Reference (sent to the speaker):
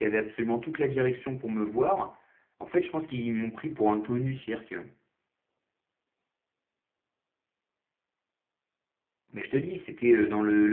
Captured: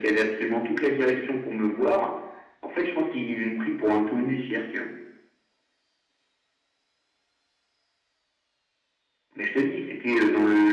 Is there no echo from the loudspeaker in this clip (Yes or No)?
No